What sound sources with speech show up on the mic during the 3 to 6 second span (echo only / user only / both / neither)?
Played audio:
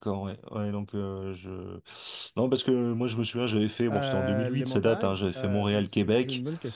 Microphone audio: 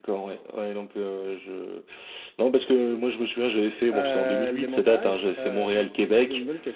echo only